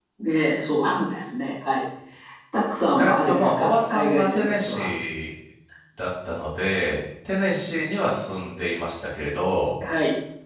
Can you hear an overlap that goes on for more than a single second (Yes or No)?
Yes